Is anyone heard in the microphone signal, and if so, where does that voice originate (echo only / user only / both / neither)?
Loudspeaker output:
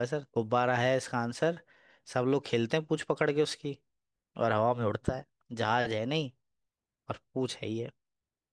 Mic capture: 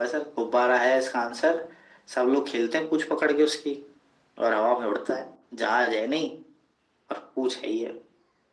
echo only